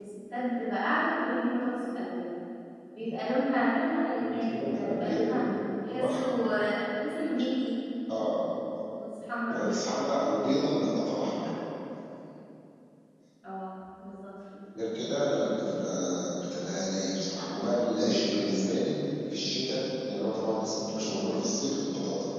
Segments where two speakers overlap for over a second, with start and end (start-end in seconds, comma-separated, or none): 4.2-5.4